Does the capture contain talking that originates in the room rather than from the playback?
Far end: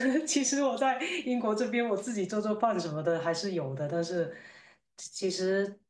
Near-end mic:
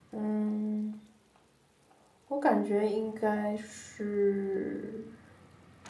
Yes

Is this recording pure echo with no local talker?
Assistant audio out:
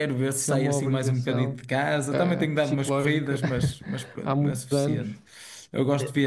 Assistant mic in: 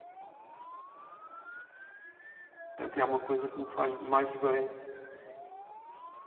No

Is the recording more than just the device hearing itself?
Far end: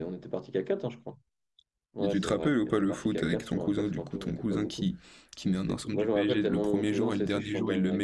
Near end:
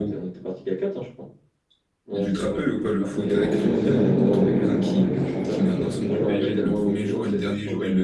Yes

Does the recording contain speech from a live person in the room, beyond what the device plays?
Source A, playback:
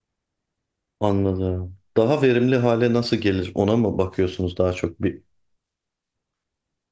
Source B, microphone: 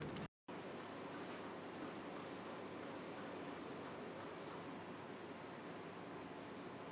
No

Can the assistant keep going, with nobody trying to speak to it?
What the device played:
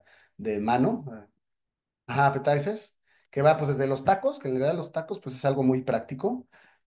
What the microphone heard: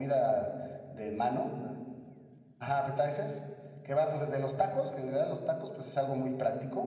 Yes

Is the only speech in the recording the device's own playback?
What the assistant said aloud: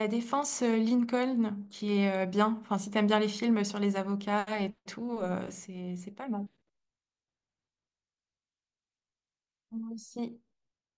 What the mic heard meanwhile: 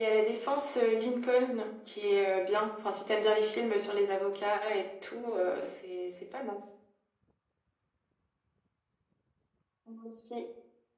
Yes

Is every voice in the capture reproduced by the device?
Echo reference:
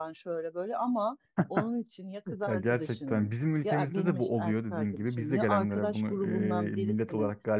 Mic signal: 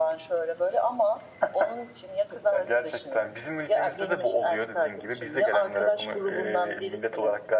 Yes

